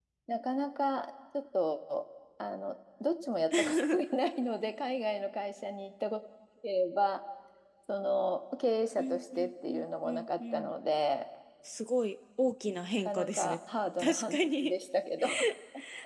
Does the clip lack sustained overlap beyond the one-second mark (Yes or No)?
No